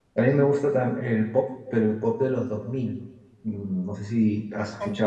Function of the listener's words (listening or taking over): listening